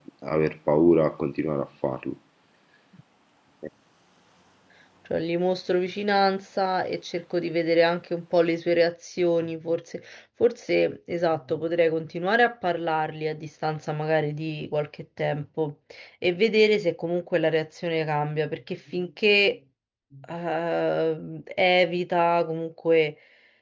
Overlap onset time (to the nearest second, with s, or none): none